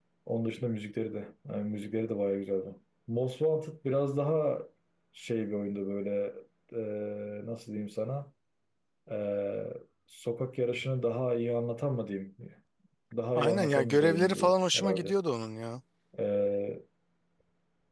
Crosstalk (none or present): present